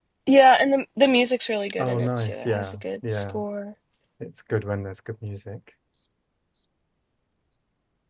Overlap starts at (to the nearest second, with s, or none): 2 s